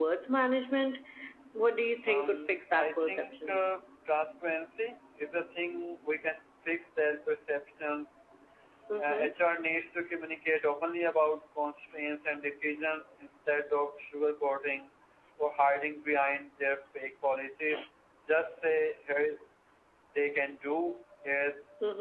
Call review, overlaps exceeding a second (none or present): present